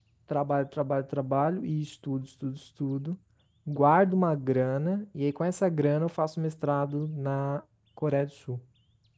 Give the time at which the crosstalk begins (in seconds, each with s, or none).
none